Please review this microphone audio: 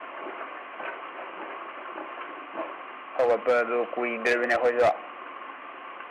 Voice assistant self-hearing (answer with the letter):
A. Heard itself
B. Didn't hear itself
B